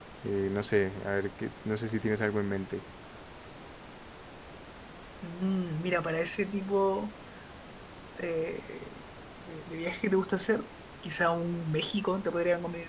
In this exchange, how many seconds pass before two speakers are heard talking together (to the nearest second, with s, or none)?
none